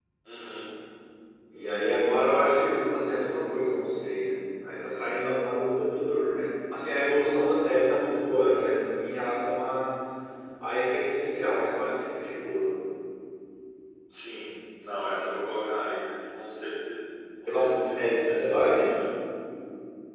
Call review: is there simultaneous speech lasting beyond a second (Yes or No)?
Yes